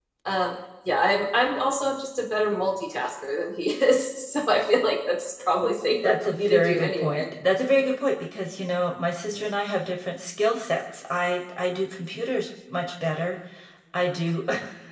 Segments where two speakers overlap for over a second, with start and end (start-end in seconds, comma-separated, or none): 6.0-7.2